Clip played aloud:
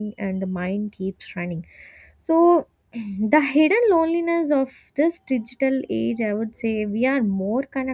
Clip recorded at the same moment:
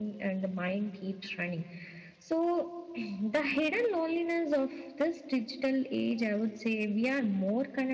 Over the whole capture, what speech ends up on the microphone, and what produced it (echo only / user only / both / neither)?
echo only